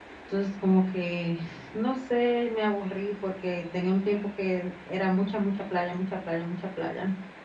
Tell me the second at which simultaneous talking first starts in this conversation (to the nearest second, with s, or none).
none